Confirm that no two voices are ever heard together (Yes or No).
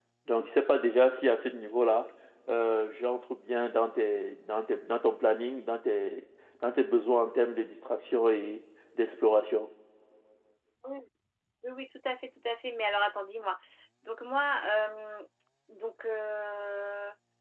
Yes